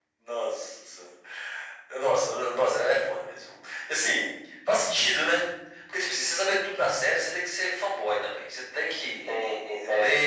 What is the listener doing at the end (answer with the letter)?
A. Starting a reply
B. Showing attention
B